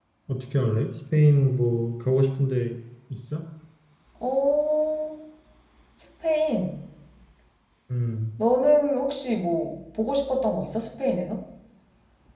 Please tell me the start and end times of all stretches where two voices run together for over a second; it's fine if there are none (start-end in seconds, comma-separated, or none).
none